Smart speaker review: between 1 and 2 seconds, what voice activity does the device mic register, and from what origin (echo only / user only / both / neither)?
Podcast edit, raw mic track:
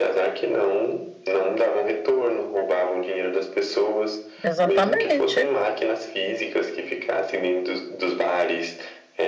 echo only